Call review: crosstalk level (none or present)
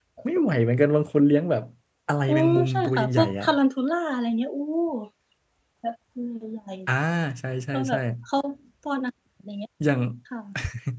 present